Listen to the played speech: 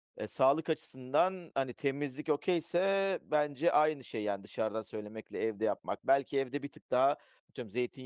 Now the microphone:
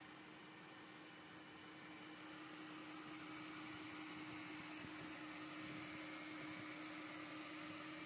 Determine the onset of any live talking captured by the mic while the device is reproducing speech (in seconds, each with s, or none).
none